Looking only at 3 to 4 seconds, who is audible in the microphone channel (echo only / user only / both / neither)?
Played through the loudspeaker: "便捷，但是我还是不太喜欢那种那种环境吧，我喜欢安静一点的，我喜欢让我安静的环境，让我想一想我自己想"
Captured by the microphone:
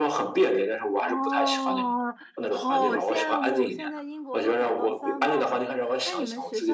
both